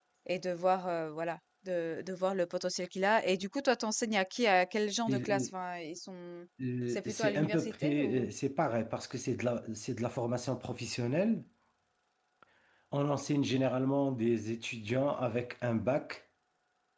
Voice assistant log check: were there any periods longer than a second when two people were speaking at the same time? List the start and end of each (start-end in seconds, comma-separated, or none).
6.9-8.3